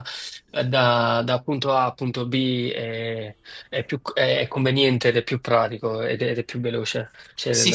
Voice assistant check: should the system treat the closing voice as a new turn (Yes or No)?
Yes